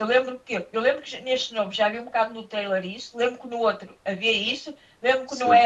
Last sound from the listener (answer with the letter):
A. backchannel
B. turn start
A